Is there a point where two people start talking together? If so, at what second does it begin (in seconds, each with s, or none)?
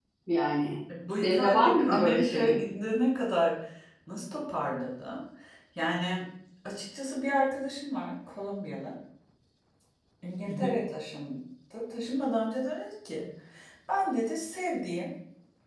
1.2 s